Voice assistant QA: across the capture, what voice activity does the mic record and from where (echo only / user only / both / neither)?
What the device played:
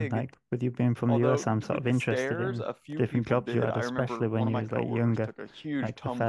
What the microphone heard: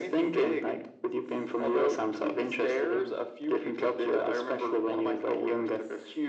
echo only